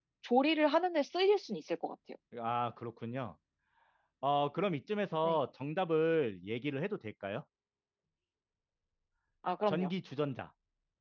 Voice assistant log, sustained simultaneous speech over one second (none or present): none